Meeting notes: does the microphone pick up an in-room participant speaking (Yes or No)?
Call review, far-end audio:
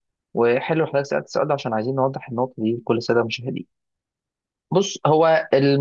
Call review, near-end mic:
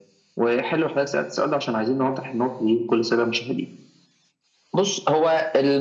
No